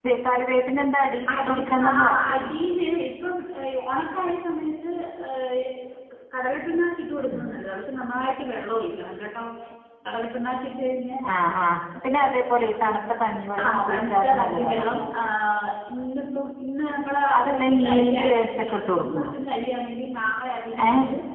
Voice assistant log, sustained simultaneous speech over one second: present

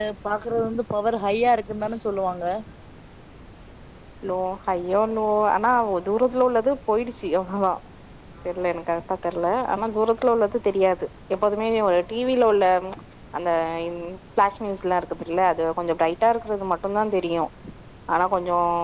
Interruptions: none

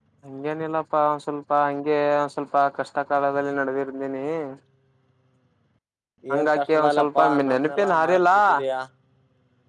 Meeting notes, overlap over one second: present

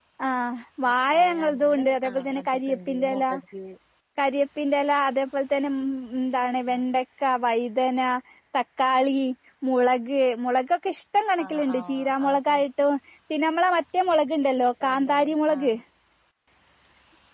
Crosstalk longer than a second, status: present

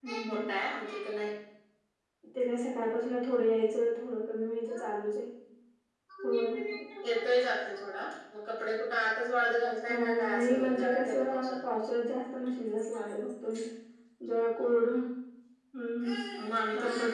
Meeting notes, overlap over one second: present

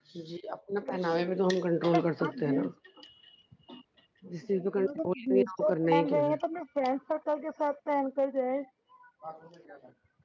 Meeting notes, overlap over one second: present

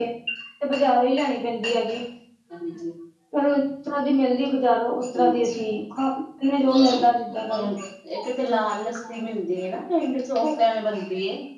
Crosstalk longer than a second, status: none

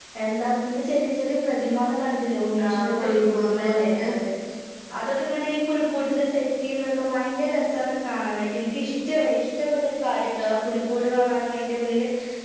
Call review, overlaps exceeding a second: present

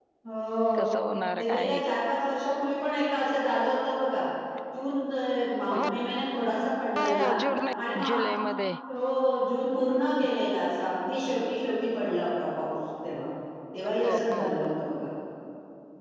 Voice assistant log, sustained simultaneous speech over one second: none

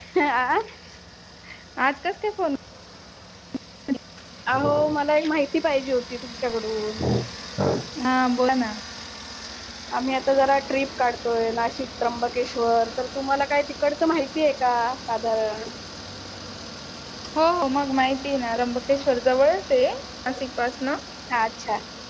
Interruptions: none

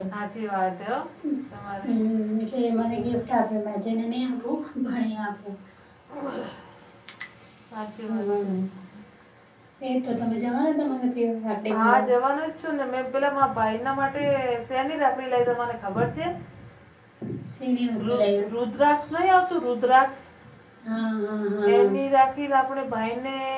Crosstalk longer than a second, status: none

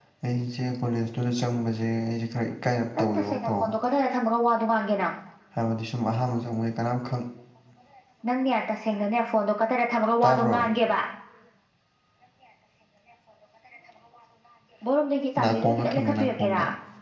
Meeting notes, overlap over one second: present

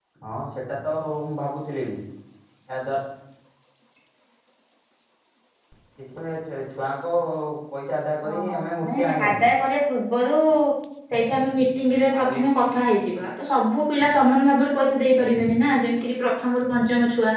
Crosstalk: present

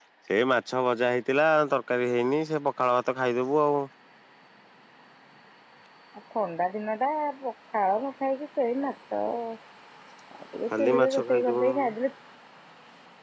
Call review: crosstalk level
present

